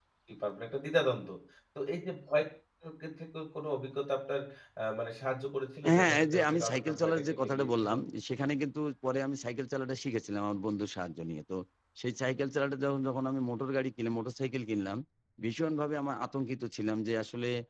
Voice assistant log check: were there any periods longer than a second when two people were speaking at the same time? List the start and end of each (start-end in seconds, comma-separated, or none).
6.0-7.9